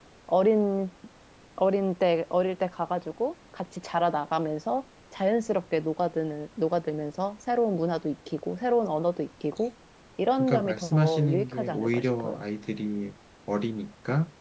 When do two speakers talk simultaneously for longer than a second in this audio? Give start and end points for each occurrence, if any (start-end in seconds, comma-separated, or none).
10.4-12.4